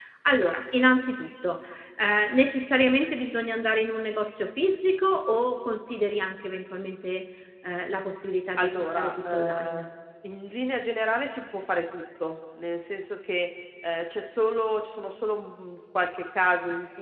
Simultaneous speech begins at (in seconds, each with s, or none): 8.6 s